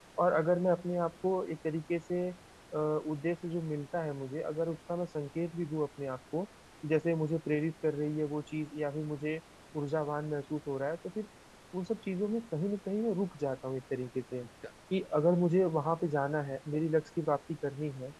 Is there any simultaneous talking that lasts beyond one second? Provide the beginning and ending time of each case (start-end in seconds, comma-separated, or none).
none